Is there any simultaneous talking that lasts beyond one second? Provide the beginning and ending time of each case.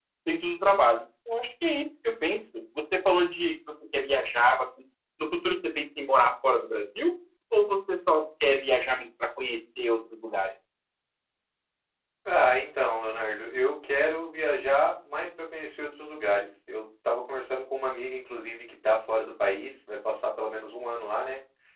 none

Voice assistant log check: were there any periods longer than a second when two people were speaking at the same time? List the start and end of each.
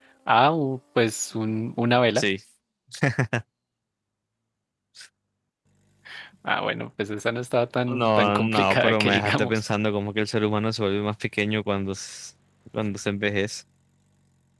7.9-9.6

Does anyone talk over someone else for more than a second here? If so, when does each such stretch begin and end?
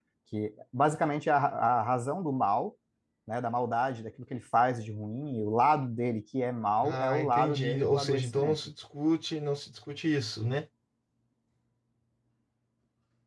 6.8-8.6

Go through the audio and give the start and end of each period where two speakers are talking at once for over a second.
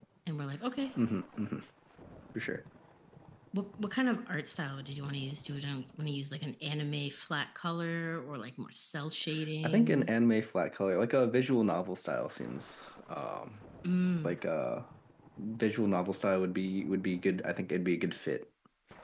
none

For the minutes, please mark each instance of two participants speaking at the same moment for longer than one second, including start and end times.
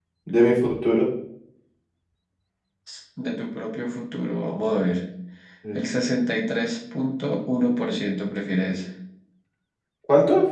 none

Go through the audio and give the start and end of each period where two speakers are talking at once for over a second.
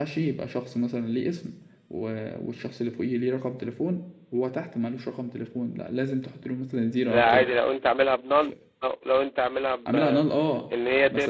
none

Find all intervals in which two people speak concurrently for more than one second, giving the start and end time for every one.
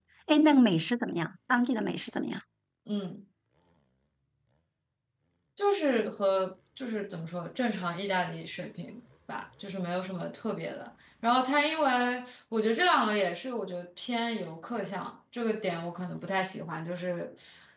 none

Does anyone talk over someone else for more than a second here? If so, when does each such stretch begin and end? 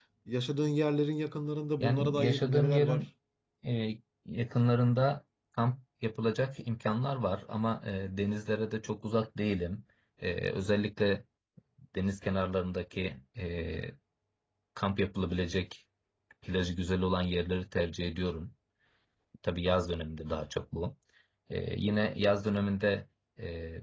1.8-3.1

